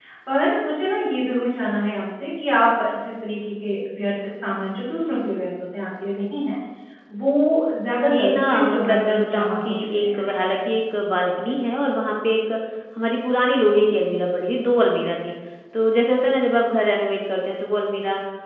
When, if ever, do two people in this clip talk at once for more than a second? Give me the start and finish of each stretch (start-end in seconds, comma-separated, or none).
8.1-10.3